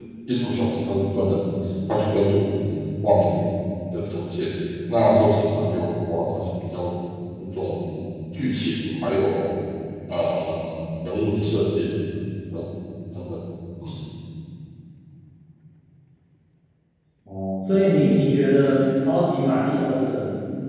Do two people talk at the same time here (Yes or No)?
No